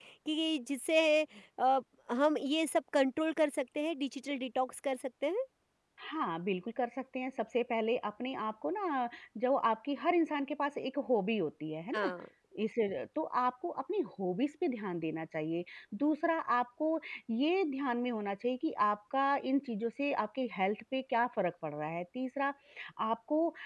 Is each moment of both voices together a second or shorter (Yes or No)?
Yes